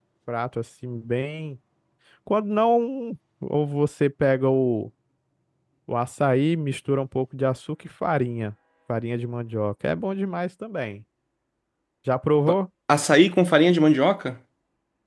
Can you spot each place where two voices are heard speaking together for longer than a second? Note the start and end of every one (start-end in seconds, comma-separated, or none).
none